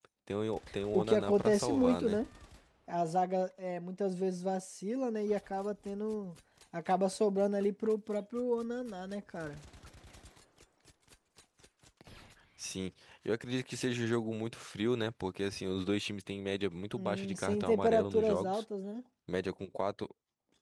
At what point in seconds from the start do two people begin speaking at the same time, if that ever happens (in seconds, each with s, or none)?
0.9 s